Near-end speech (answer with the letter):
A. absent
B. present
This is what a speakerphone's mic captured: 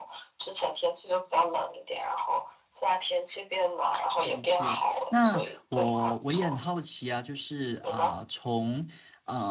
B